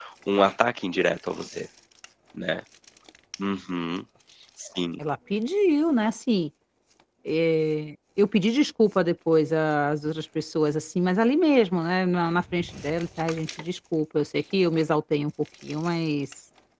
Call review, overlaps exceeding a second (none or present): none